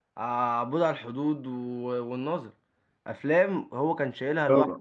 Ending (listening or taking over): listening